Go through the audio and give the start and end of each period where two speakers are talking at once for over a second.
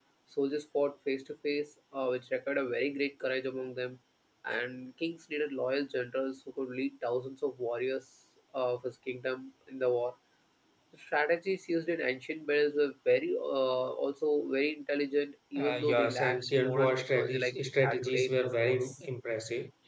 15.6-19.0

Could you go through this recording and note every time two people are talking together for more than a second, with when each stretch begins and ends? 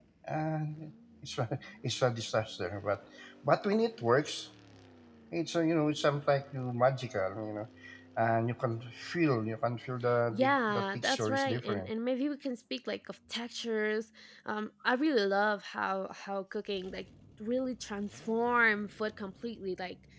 10.3-11.9

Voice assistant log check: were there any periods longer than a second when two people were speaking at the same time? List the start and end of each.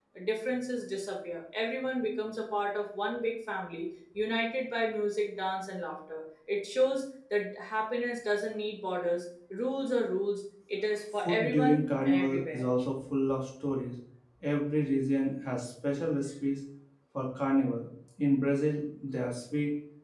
11.2-12.6

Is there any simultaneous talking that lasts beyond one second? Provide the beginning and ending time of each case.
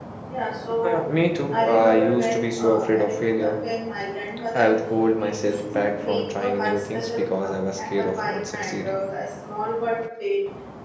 1.5-3.6, 5.2-8.9

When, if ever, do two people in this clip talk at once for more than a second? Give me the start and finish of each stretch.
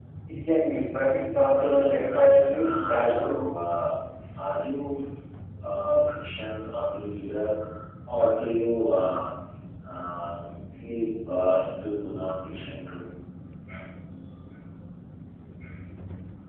1.5-3.4

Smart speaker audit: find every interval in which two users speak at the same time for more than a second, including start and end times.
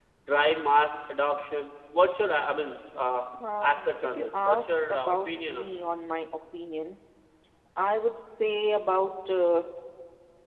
3.6-5.8

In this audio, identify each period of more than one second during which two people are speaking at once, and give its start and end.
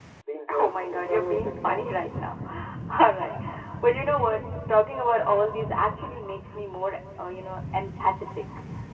0.6-1.8

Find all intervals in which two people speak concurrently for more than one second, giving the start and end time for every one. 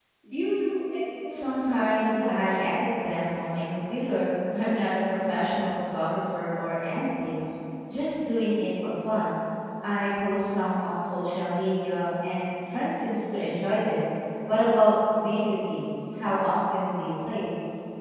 1.3-2.7

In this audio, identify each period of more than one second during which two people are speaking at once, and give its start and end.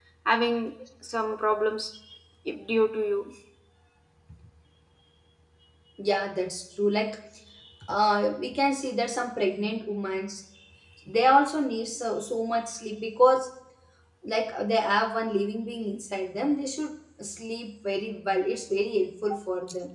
none

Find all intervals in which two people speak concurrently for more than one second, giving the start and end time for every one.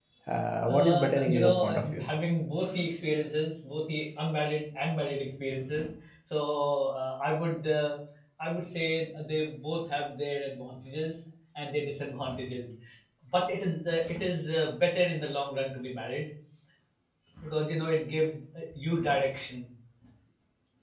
0.7-2.0

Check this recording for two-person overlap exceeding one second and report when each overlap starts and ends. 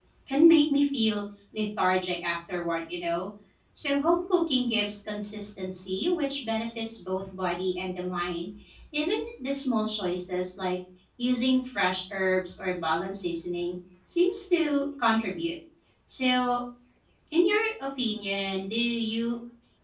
none

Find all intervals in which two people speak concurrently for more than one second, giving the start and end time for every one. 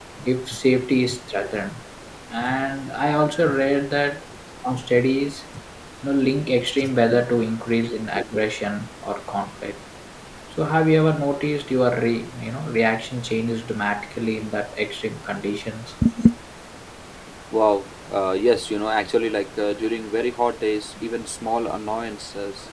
none

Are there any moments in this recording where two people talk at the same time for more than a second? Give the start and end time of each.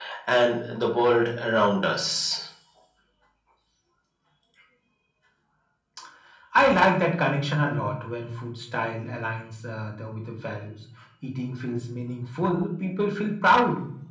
none

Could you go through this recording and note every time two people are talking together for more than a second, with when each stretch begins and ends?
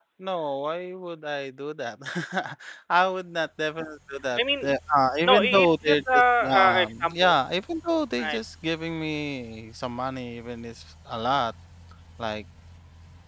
5.2-7.3

